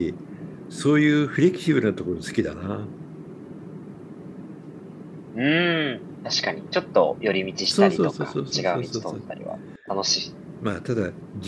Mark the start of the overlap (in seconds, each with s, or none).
7.7 s